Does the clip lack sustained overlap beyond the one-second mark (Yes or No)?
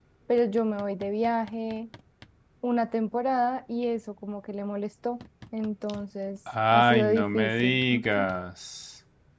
No